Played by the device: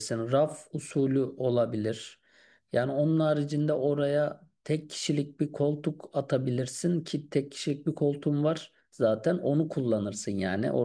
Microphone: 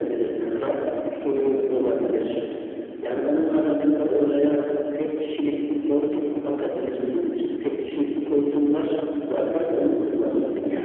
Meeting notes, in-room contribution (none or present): none